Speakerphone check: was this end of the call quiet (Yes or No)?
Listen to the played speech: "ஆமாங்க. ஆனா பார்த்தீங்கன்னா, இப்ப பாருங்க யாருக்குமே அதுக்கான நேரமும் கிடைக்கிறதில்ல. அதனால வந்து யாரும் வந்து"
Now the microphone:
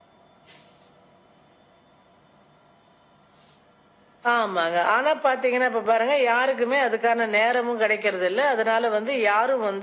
Yes